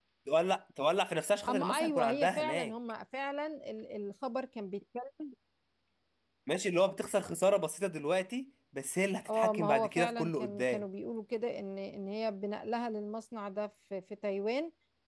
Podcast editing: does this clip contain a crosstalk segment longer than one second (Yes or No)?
Yes